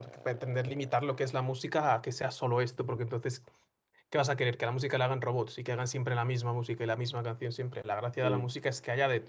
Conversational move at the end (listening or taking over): listening